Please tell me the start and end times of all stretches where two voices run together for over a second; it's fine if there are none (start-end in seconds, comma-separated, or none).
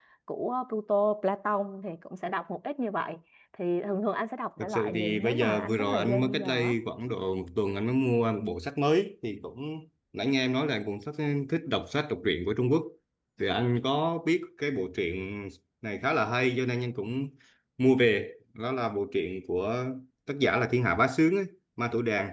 4.6-6.8